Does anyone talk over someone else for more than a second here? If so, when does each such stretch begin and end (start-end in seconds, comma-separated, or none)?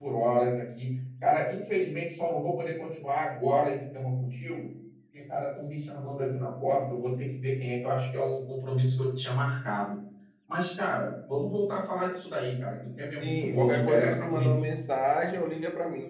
13.1-14.6